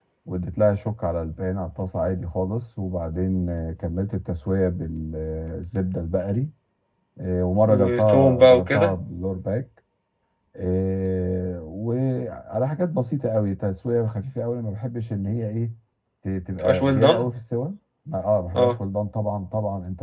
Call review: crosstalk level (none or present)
present